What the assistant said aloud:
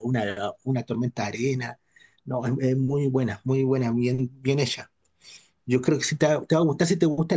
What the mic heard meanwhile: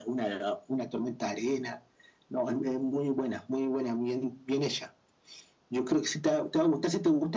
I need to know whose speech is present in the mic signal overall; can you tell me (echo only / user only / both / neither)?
echo only